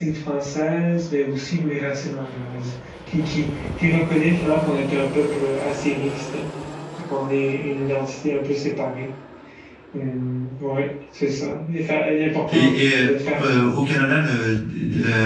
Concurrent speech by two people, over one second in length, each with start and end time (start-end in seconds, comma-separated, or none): 12.5-13.9